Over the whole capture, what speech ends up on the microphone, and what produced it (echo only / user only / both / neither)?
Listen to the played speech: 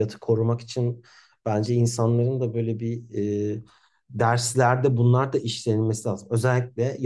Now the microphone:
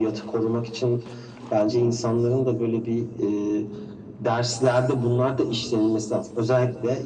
echo only